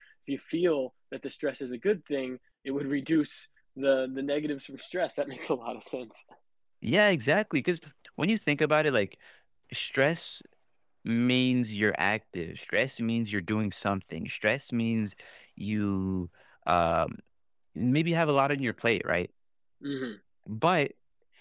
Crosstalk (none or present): none